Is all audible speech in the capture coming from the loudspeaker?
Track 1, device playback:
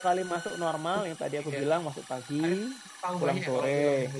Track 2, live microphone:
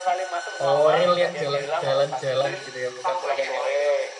No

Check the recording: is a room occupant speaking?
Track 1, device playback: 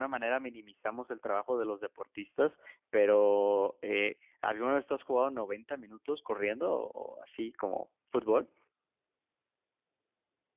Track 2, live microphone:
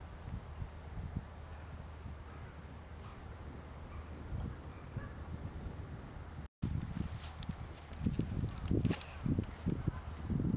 No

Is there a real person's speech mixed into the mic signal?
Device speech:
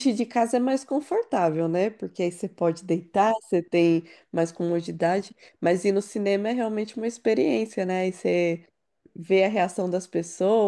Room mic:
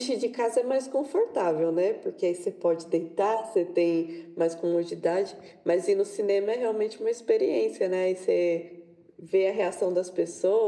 No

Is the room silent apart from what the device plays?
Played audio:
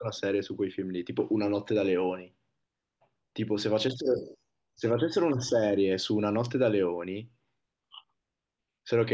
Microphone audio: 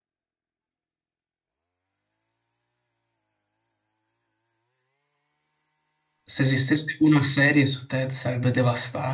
No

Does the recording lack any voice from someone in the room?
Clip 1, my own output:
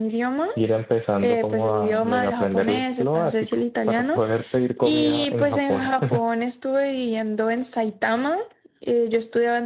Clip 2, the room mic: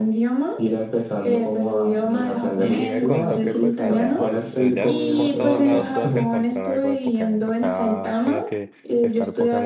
No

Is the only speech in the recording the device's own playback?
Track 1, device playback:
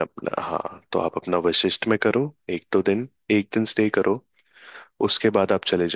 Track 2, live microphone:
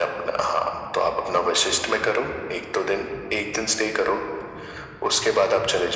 Yes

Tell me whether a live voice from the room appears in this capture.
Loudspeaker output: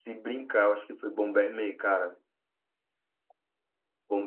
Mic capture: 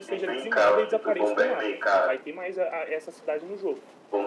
Yes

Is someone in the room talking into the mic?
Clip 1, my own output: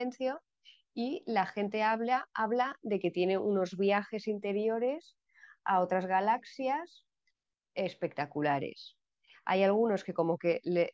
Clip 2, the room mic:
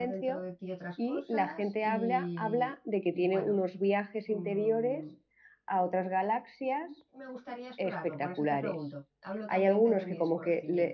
Yes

